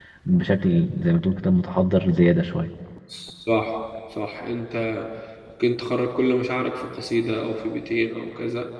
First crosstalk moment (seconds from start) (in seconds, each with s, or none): none